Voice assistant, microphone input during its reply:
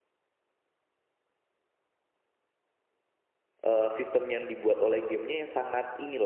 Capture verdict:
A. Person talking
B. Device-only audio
A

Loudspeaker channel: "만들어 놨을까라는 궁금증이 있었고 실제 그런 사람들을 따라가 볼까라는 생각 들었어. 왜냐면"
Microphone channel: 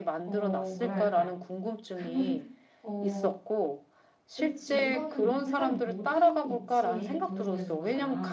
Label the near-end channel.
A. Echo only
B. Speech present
B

